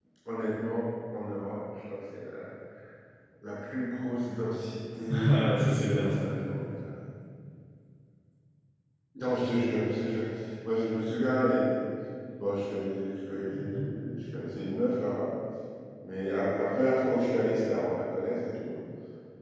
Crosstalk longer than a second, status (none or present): present